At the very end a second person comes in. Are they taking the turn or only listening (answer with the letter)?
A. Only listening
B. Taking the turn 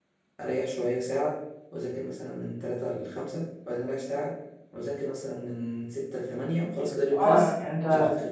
B